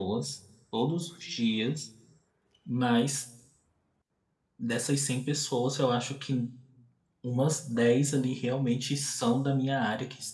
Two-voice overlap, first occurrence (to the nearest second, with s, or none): none